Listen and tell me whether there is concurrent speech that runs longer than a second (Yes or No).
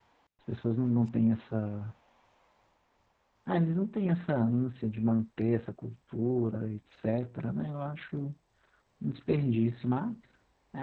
No